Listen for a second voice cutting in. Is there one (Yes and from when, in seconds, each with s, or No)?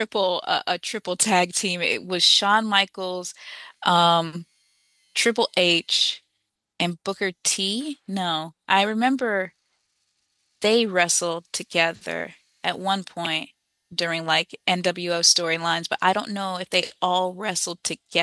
No